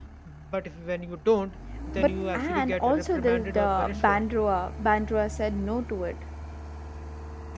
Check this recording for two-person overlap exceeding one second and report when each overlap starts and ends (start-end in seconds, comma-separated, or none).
2.0-4.2